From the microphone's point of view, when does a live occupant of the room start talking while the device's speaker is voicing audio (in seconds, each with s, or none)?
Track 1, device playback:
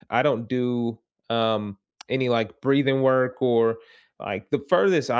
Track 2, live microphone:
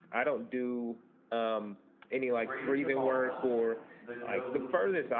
2.2 s